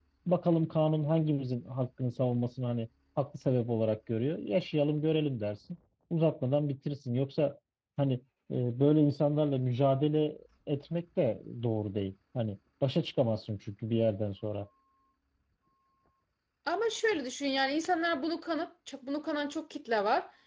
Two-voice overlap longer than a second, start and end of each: none

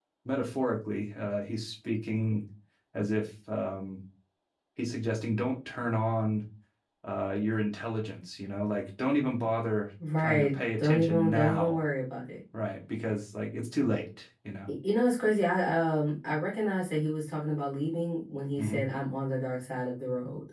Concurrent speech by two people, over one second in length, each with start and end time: 10.2-11.8

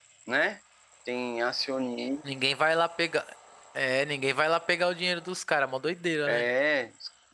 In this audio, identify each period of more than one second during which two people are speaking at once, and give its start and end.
none

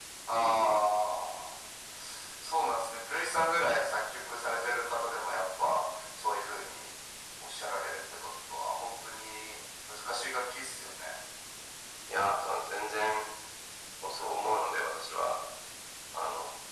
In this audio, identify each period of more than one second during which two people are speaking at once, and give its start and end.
none

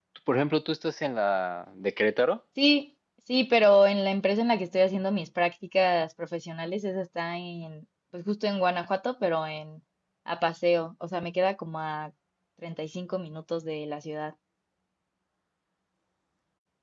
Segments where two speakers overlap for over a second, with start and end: none

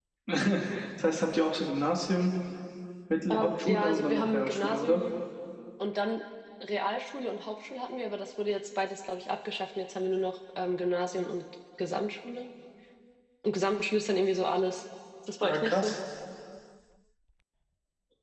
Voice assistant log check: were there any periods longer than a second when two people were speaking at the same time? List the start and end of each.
3.3-5.0

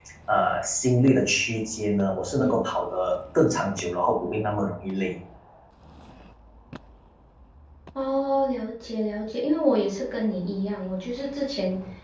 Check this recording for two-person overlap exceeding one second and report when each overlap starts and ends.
none

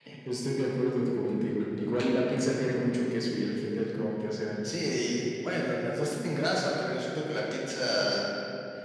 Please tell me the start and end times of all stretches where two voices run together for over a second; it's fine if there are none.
none

